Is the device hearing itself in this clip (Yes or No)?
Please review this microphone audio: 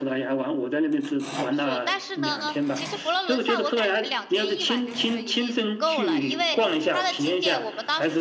Yes